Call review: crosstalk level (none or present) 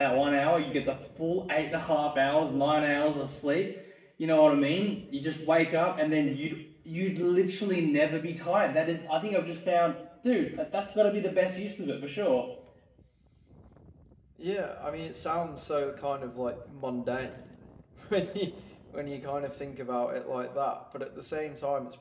none